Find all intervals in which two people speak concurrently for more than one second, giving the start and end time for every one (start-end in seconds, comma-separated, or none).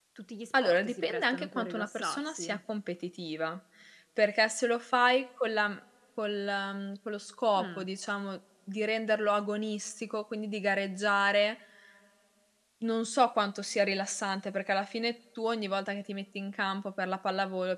0.6-2.6